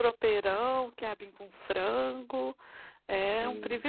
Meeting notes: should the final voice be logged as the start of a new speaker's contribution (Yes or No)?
Yes